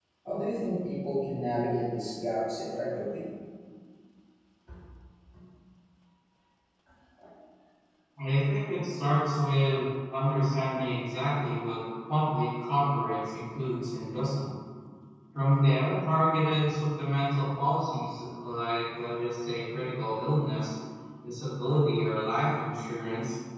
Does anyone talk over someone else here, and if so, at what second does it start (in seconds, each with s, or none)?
none